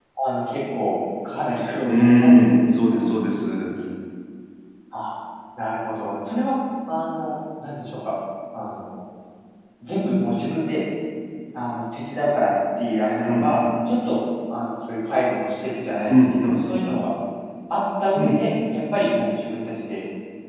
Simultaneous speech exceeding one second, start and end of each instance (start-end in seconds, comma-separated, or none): 1.9-3.1